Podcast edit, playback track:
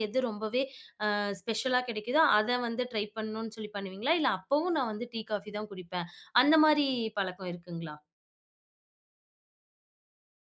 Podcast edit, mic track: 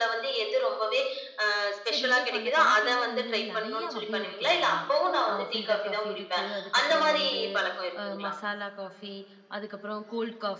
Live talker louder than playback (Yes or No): No